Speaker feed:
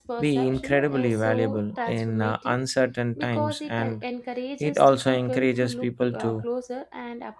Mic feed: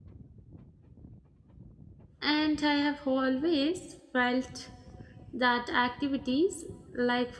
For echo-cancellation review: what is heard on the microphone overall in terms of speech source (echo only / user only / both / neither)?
user only